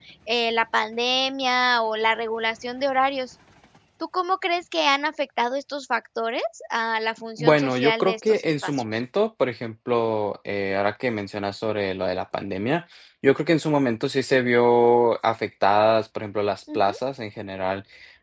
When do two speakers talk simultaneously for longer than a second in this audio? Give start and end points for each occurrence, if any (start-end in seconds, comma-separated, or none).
7.4-9.0